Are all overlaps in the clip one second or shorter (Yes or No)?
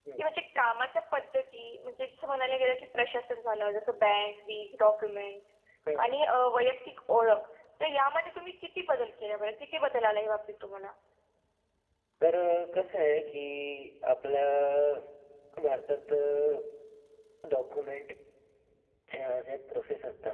Yes